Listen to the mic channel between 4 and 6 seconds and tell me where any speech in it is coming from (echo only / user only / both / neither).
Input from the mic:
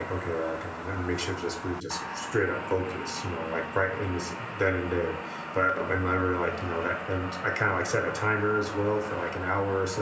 user only